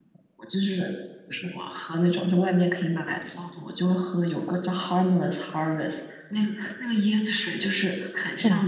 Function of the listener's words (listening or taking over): listening